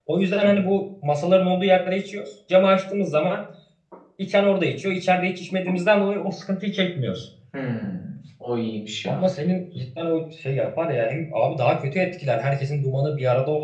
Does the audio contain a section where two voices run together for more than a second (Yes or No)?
No